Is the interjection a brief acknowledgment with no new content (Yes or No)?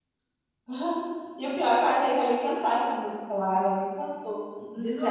Yes